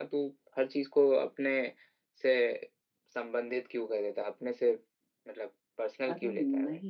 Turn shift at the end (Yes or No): Yes